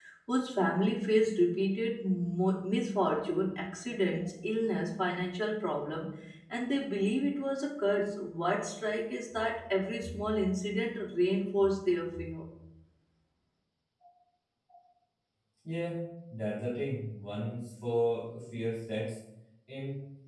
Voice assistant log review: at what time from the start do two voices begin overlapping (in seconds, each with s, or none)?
none